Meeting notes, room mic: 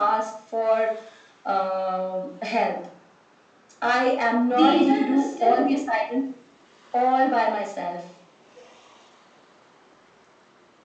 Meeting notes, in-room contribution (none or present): present